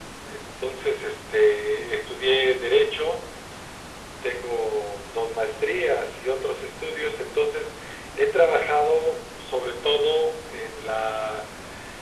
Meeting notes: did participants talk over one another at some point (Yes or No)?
No